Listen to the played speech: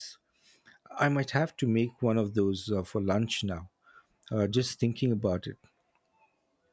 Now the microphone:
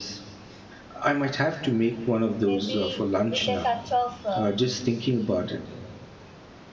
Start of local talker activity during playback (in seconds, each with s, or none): 2.4 s